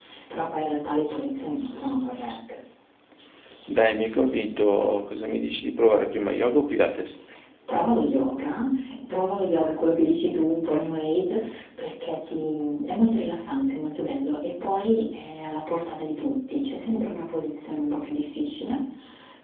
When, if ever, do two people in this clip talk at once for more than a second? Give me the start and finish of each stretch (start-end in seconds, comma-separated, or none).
none